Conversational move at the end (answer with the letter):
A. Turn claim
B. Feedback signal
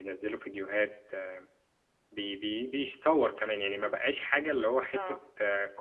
B